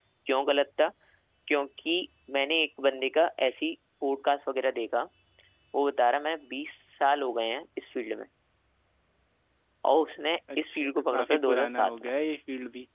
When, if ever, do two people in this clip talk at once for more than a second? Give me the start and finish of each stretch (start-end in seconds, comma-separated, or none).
10.7-12.1